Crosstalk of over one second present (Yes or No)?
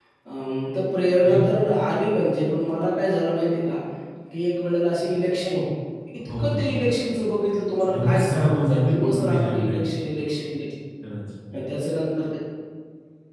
Yes